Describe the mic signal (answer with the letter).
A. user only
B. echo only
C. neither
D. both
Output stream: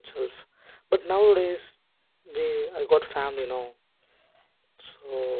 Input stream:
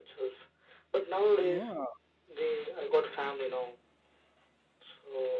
D